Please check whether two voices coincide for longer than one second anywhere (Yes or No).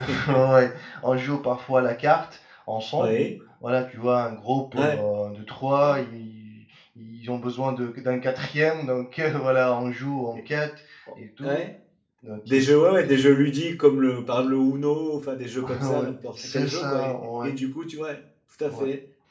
Yes